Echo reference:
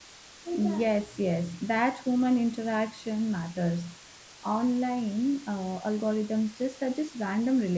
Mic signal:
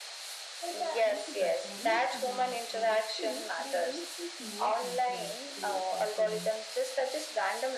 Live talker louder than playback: No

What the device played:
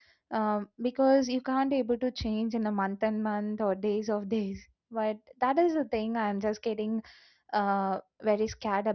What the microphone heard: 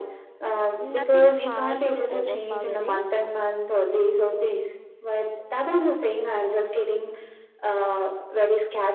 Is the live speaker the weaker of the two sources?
Yes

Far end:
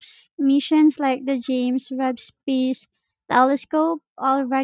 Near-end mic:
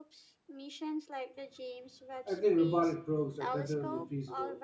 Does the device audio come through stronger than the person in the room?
No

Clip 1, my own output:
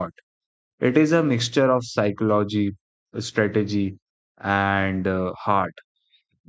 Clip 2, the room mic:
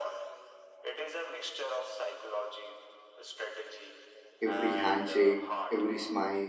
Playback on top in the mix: No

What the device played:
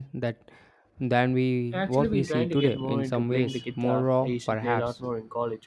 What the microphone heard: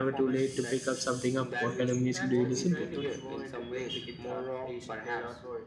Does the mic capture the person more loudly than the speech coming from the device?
Yes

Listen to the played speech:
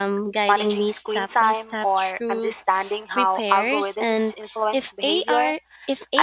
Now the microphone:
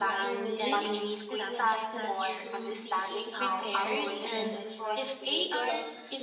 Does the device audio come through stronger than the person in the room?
Yes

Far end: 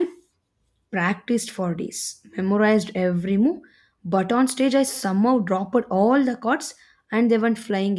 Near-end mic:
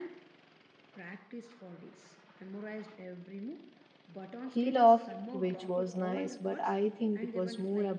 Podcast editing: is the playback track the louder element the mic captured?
No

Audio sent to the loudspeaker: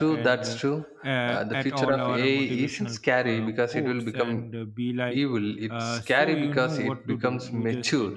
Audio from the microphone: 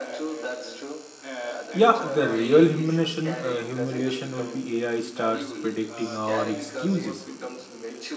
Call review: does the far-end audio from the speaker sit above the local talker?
No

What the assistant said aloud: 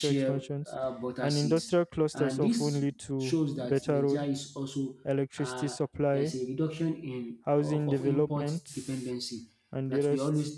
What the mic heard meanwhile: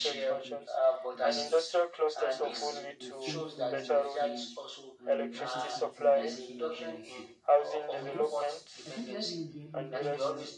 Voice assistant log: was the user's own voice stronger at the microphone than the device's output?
No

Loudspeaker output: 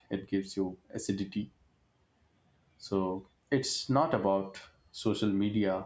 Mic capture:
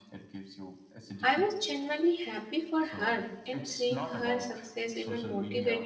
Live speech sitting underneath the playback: No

